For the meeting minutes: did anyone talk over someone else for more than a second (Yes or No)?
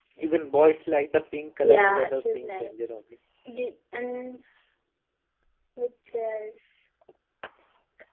Yes